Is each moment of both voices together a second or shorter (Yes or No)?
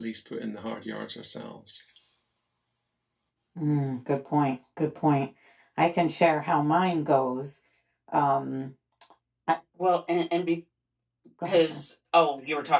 Yes